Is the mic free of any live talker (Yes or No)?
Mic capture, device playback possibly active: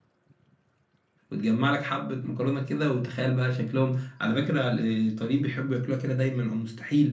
No